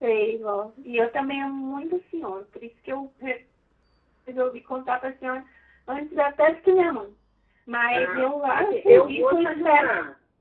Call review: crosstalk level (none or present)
present